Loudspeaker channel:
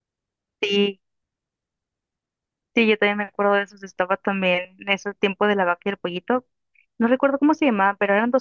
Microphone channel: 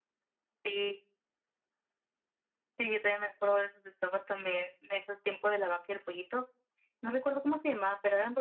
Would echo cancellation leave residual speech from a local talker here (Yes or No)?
No